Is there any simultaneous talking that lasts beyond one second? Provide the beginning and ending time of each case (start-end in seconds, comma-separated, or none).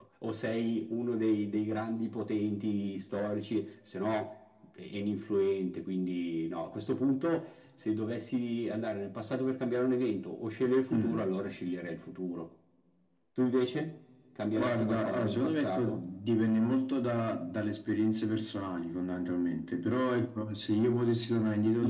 14.6-16.0